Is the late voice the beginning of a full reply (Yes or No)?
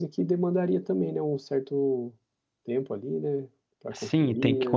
Yes